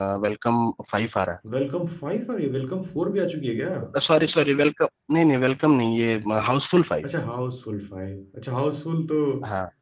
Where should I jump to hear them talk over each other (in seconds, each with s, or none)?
none